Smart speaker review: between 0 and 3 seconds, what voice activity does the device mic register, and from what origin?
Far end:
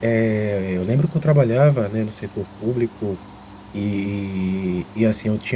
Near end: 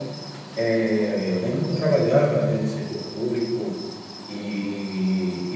echo only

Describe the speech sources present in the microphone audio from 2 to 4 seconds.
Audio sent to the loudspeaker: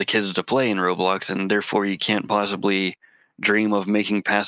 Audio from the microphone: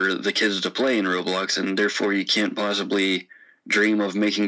echo only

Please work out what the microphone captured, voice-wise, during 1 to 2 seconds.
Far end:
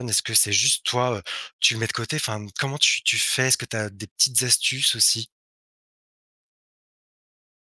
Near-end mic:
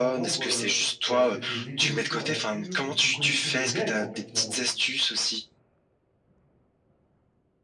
both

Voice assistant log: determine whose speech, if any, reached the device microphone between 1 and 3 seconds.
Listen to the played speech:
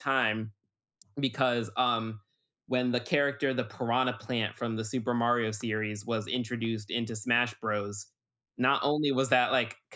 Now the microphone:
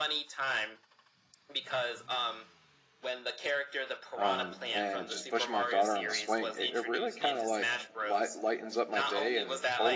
echo only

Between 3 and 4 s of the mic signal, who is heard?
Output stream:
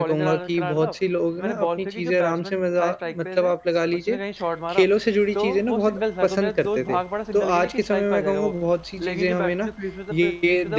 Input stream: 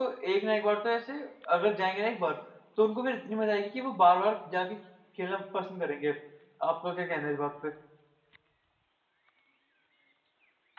user only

